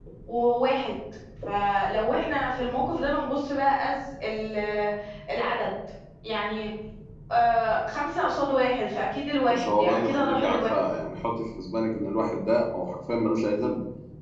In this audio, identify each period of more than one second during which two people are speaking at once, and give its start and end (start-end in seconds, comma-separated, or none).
9.5-10.8